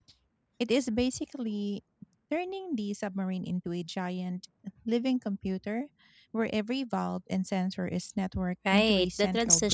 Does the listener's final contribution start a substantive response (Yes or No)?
Yes